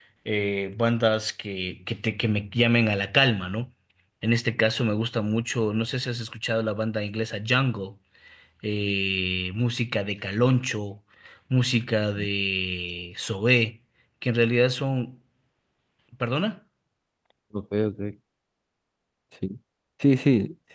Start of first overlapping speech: none

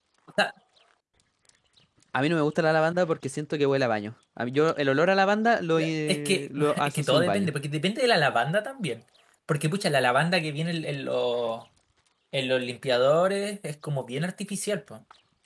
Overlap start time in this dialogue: 6.1 s

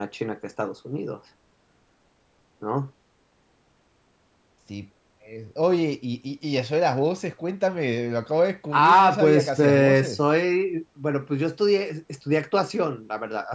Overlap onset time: 8.7 s

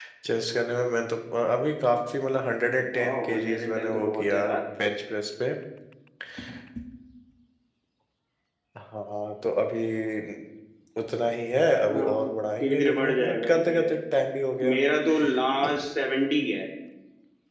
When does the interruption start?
2.9 s

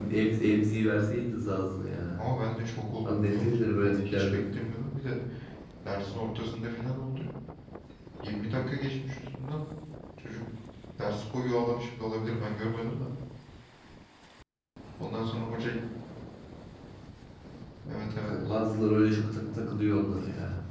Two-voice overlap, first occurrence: 3.1 s

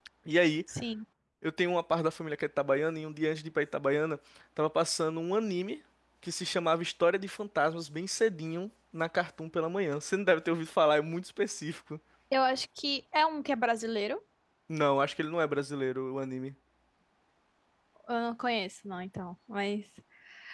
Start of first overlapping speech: none

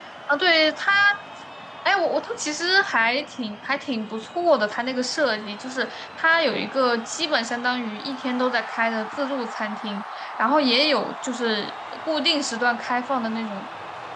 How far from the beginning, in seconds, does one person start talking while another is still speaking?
none

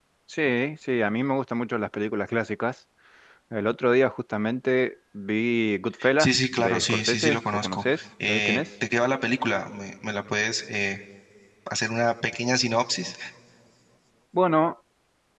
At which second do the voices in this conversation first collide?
6.0 s

